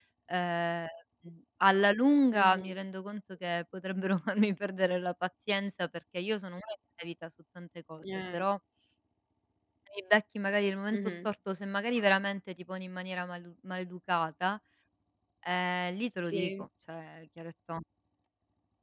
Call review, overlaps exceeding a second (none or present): none